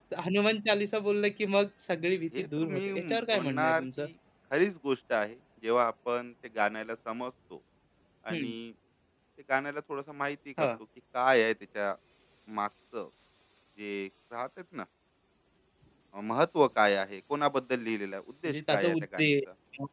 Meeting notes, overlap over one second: present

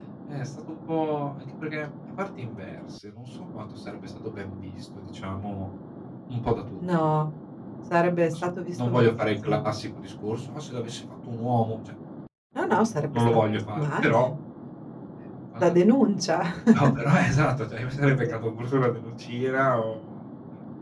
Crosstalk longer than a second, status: present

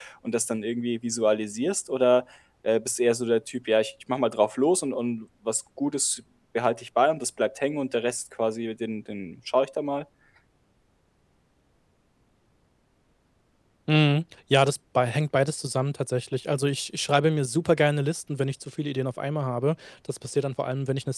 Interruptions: none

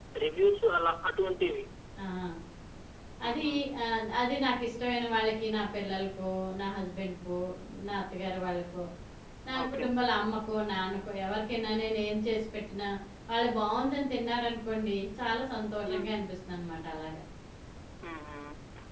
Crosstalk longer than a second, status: none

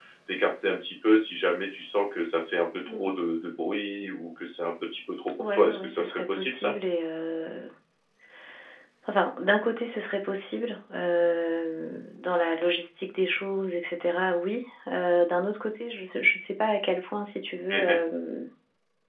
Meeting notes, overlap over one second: present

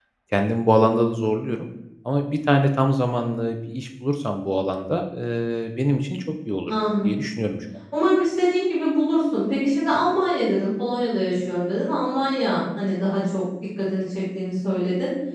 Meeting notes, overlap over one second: none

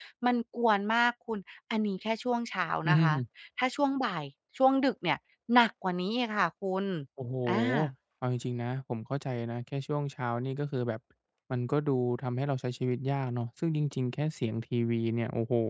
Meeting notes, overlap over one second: none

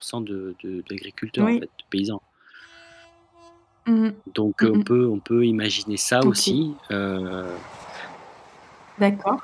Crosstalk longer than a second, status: none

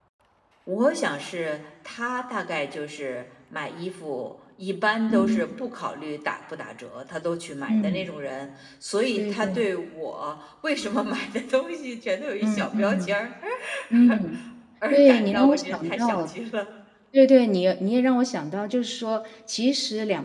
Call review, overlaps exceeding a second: present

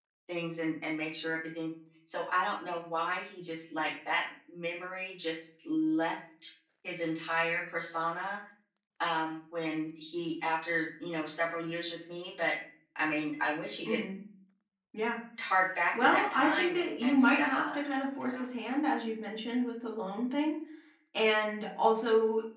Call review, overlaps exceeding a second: present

